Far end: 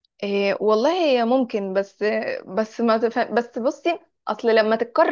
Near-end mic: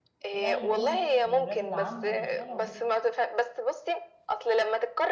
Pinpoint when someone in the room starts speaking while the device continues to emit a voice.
0.3 s

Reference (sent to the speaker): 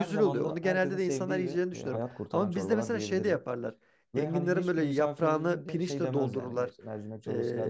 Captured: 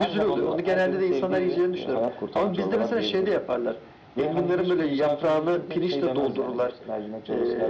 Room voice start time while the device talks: none

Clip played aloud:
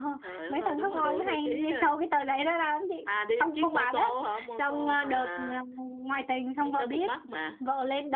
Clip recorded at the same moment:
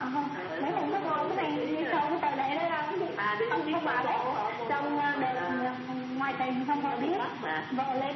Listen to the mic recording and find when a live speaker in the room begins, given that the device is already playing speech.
none

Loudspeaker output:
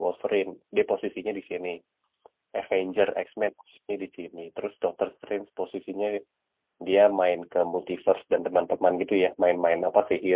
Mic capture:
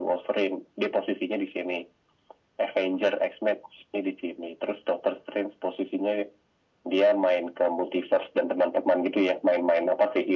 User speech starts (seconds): none

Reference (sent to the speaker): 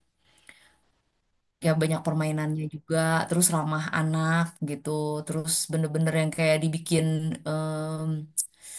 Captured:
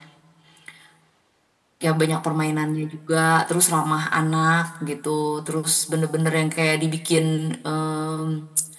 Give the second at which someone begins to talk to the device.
none

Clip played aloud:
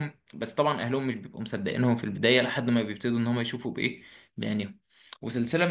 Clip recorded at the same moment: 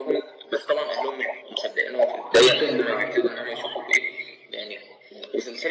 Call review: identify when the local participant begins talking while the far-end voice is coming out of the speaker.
2.4 s

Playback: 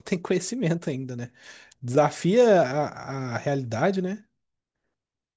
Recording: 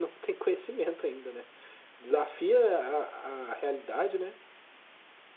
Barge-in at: none

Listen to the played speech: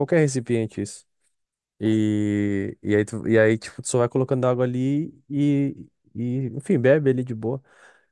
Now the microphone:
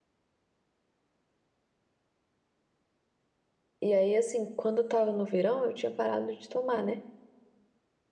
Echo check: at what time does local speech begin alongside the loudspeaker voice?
3.8 s

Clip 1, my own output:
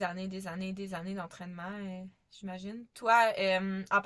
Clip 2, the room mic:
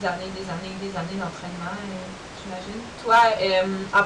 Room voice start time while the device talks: none

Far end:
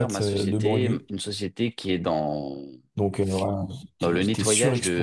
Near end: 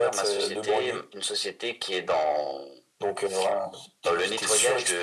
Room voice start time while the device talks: none

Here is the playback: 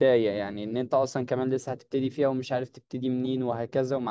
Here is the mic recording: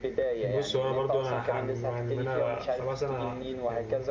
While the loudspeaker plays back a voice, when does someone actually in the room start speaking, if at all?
0.4 s

